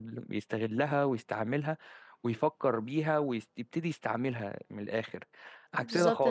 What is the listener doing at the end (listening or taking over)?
taking over